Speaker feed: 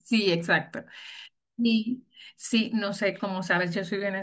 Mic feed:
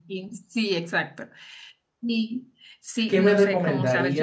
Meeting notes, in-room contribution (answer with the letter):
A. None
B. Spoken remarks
B